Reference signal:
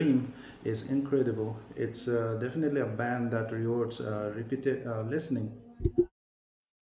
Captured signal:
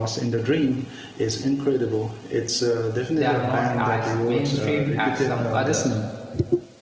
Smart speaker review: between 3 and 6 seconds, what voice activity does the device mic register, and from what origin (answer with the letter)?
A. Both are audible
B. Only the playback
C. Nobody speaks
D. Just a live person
A